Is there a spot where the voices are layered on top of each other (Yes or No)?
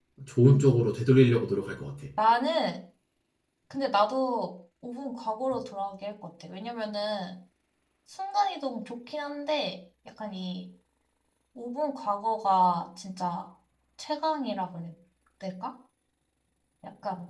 No